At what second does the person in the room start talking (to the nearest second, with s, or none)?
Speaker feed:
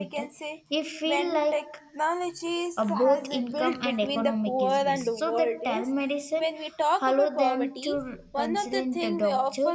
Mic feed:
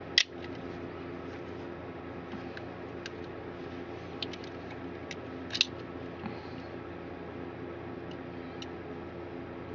none